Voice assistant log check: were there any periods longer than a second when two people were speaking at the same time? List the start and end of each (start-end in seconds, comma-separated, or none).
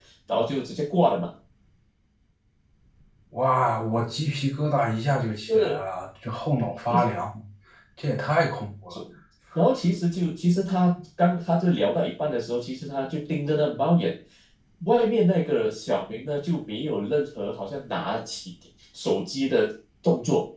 none